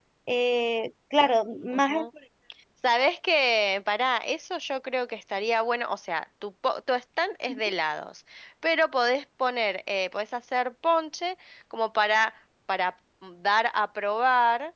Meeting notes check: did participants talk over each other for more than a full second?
No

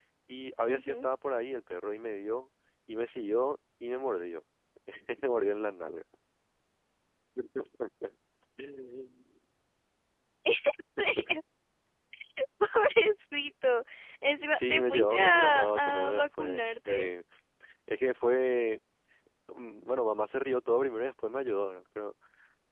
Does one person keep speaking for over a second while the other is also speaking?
Yes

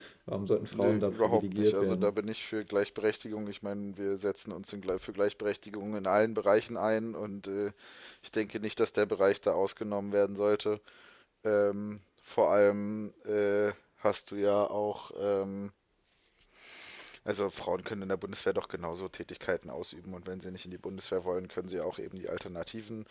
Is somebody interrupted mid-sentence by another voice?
Yes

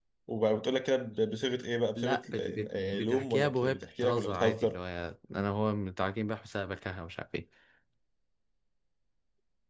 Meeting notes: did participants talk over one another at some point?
Yes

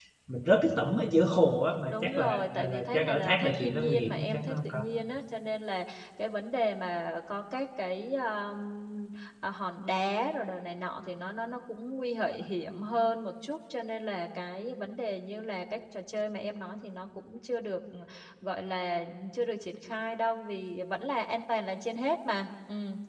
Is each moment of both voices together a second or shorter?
No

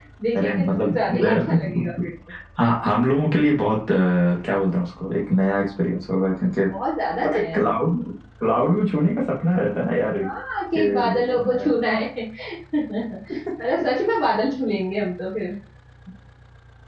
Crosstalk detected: Yes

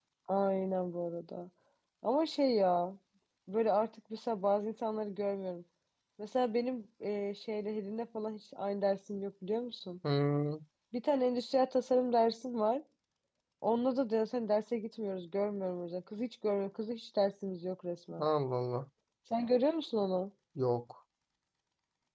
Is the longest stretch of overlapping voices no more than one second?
Yes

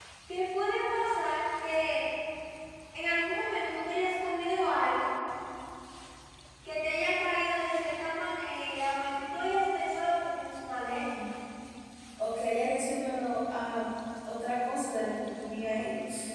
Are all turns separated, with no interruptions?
Yes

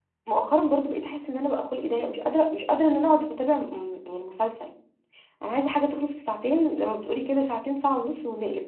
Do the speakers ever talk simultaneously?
No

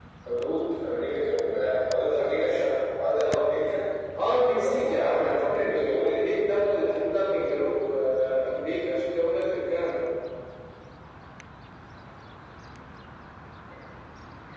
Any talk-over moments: Yes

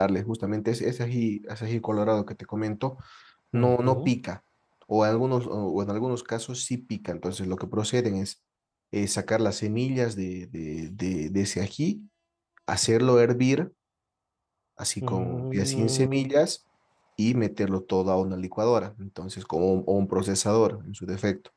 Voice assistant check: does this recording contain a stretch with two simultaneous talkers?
Yes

